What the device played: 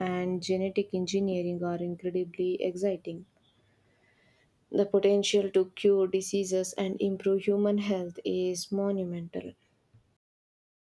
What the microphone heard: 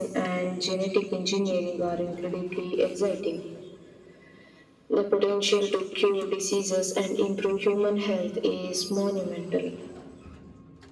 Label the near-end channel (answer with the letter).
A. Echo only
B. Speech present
A